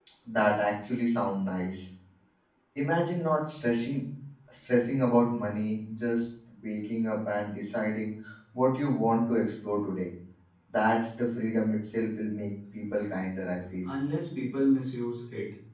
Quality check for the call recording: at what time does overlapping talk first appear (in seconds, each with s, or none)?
none